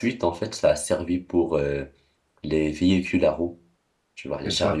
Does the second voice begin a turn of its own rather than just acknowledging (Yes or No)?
No